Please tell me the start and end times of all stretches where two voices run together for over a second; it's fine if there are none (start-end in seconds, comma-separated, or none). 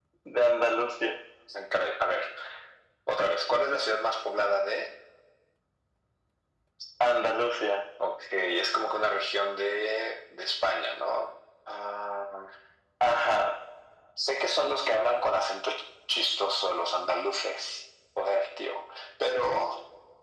none